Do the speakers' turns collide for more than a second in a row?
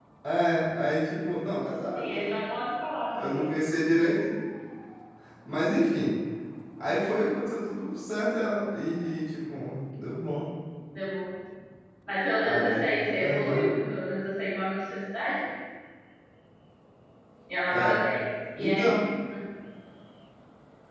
No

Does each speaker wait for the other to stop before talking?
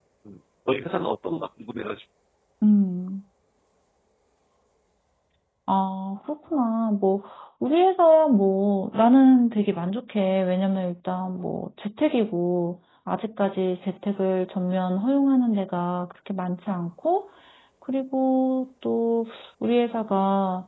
Yes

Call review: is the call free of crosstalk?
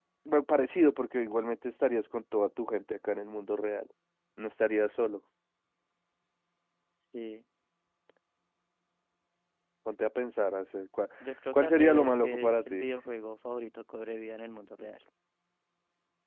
No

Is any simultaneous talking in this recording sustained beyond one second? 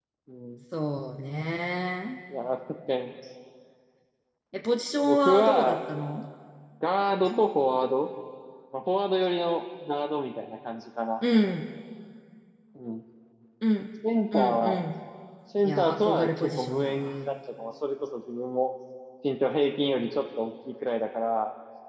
Yes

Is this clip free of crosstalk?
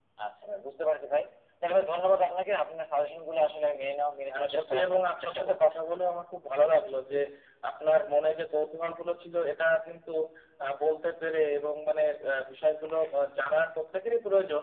No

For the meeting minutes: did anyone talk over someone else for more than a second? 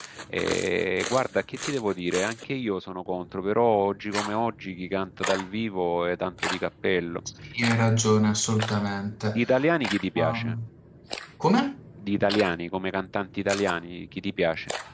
No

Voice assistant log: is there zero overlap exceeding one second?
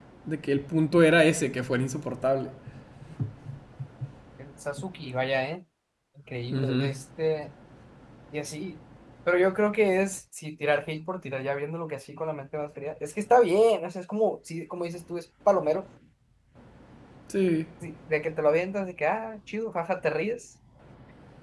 Yes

